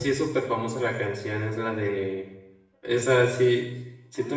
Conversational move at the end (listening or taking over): taking over